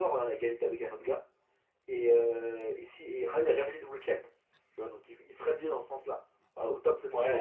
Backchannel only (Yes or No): No